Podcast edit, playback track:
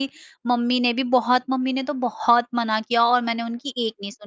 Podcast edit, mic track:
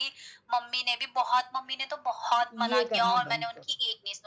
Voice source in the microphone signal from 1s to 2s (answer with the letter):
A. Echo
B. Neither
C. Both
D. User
A